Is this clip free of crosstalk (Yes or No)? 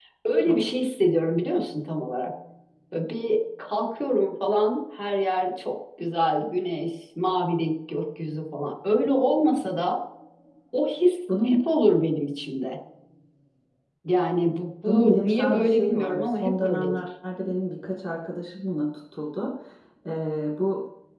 No